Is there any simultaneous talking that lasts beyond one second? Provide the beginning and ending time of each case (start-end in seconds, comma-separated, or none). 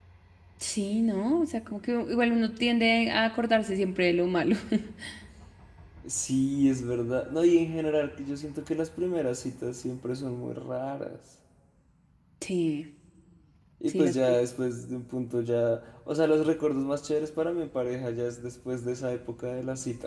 none